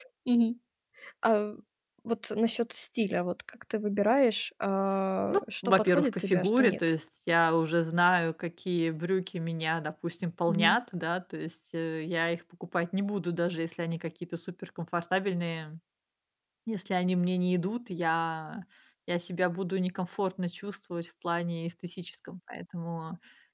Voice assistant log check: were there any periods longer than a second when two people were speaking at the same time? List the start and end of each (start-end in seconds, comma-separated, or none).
5.3-6.8